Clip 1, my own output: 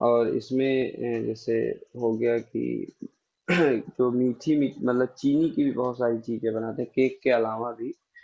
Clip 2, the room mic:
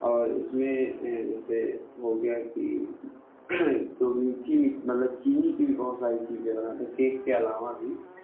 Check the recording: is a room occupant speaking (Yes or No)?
No